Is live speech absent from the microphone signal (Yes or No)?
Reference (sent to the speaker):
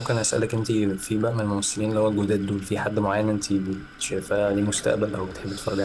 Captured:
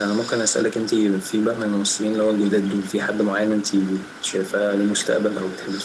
Yes